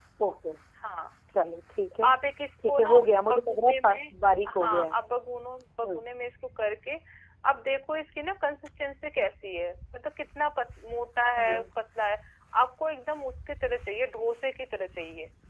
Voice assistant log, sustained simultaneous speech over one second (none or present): present